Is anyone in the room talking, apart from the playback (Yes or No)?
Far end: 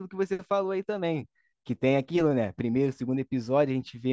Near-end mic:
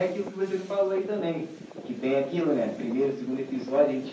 No